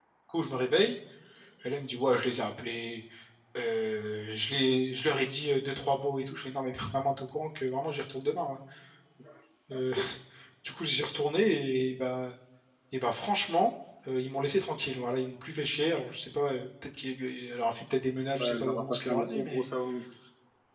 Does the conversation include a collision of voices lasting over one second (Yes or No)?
Yes